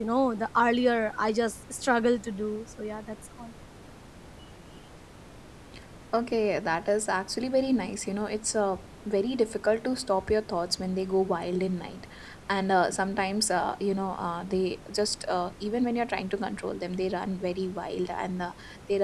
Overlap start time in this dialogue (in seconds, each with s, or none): none